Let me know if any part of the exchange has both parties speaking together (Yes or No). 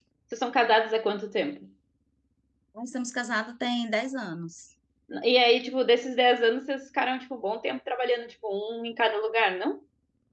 No